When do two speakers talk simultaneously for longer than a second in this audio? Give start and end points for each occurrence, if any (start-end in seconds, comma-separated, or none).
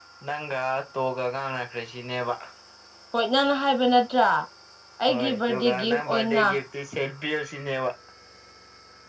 5.1-6.6